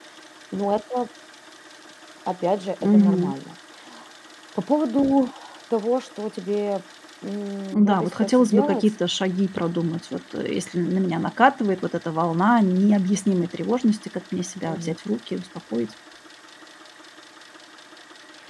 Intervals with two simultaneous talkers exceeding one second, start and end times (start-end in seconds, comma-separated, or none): 7.7-8.9